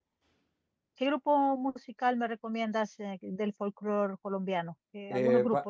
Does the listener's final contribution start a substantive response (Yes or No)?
Yes